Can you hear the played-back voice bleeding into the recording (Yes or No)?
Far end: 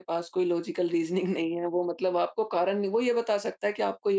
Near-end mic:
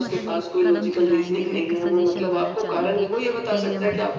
Yes